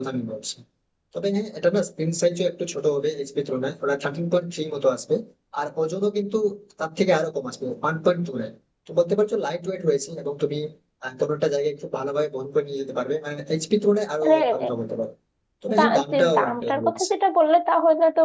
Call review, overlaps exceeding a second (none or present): present